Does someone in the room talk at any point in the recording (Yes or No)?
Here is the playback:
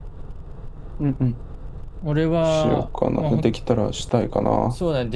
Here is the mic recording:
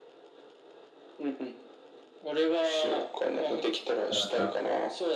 Yes